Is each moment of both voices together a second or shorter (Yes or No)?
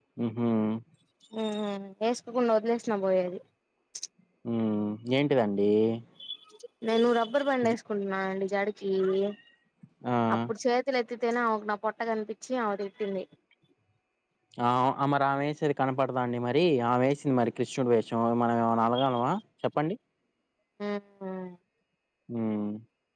Yes